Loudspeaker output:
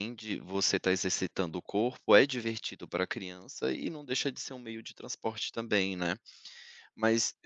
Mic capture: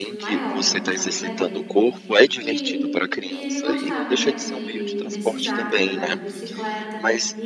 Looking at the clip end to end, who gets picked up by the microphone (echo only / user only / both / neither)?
both